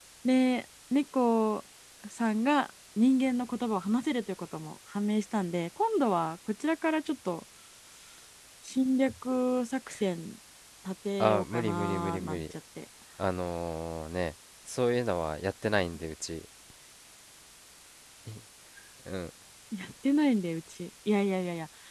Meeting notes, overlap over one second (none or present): present